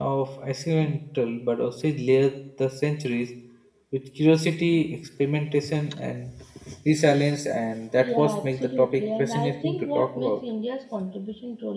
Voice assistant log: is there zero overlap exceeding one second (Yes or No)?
No